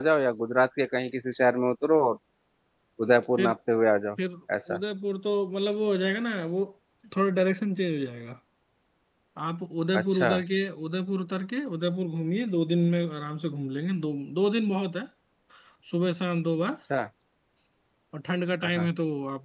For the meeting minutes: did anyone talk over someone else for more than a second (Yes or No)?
No